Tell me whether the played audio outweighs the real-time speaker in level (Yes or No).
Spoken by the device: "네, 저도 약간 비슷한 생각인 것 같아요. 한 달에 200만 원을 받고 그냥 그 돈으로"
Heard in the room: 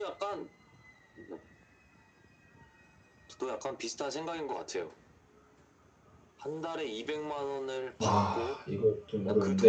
No